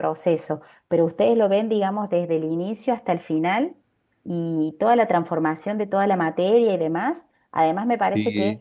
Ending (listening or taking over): listening